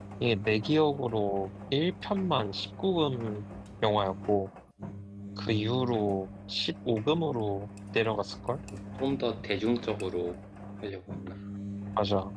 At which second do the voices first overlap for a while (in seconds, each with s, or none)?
none